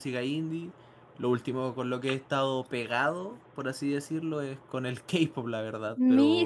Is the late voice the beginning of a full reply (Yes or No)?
Yes